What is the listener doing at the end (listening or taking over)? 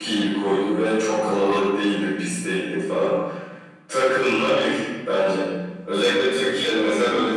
listening